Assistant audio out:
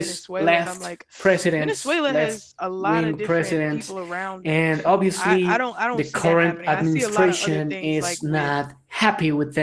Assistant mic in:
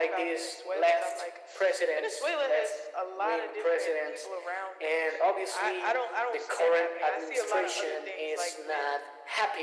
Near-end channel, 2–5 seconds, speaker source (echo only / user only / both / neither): echo only